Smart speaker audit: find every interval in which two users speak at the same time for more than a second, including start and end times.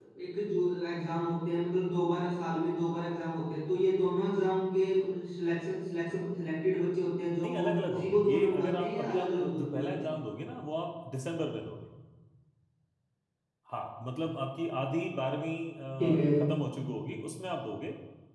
7.4-10.1

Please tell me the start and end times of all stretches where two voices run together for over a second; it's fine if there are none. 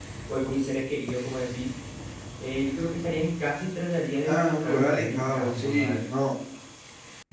4.2-5.9

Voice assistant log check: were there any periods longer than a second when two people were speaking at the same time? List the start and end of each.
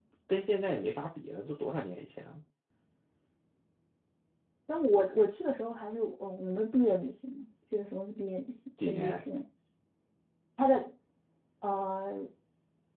none

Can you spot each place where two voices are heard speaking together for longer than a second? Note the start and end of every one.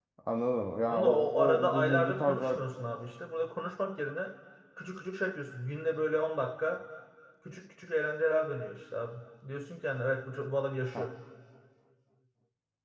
0.9-2.6

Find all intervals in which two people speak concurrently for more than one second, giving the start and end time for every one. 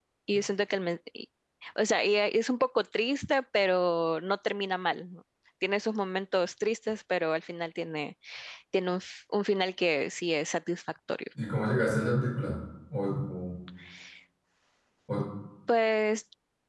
none

